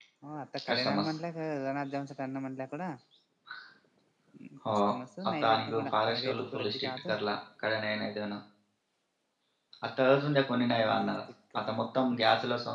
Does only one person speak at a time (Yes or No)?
No